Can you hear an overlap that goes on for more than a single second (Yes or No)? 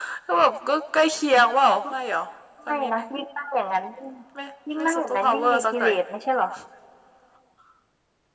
Yes